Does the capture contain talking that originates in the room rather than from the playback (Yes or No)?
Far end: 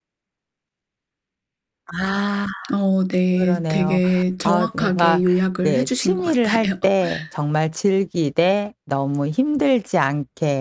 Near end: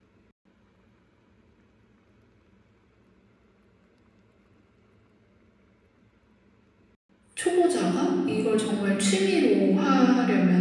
Yes